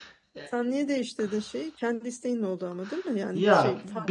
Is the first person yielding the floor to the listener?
Yes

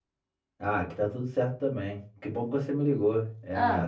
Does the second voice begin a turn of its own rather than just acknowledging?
No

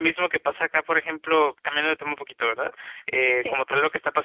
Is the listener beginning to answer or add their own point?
No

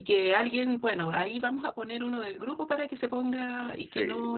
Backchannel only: Yes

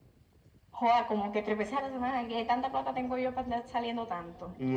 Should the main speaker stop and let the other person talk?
Yes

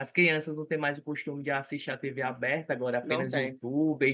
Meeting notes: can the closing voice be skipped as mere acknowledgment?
Yes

